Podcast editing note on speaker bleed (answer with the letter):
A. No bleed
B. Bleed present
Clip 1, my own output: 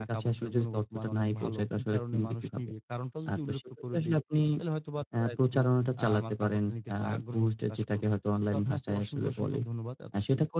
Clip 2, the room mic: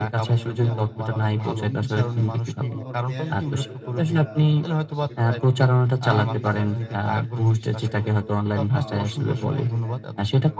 B